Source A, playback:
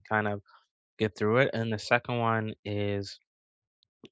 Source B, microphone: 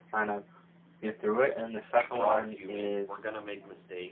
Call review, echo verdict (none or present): present